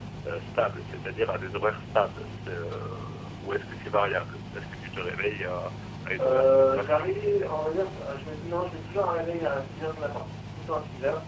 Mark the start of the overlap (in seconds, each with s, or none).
6.2 s